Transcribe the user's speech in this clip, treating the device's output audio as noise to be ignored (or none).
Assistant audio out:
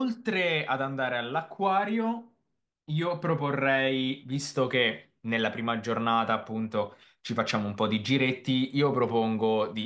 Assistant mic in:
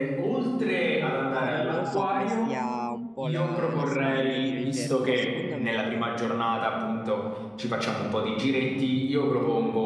no, non, non so come sia un po' la, la Spagna, a dire il vero, però secondo me